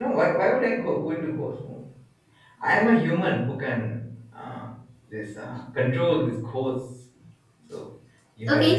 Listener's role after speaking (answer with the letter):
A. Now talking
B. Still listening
A